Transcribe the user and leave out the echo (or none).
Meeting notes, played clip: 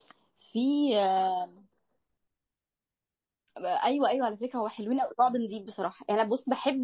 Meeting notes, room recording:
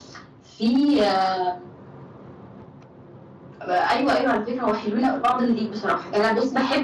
none